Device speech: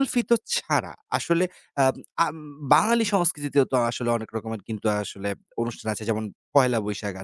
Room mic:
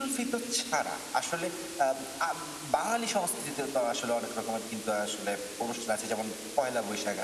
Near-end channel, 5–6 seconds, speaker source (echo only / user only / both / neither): echo only